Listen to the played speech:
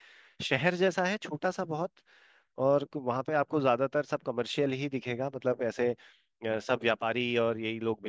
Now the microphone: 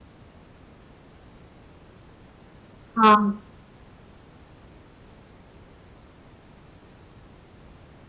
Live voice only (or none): हाँ